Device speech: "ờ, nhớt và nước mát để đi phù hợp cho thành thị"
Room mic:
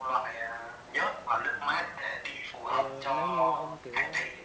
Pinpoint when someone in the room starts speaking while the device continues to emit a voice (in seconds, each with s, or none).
1.5 s